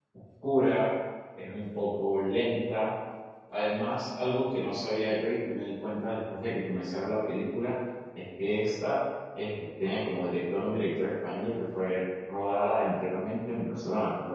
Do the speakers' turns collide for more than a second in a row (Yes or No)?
No